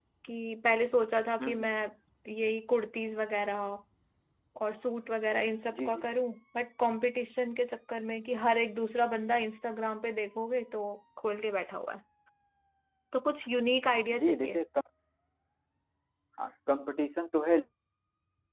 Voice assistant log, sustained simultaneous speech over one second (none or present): none